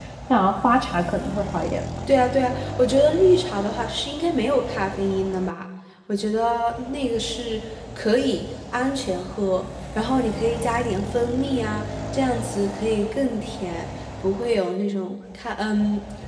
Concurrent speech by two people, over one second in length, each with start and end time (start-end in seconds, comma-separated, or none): none